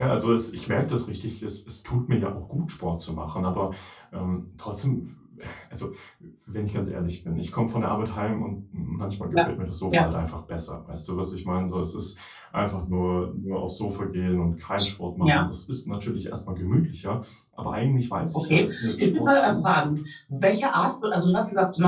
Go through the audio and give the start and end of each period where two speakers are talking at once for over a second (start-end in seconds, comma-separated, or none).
18.3-20.0